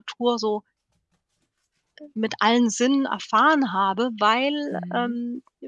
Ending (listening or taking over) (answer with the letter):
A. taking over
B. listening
B